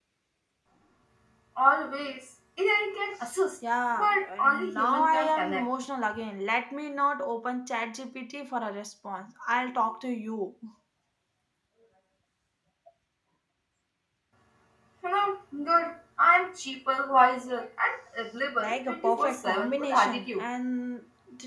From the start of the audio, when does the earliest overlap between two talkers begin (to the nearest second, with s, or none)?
4 s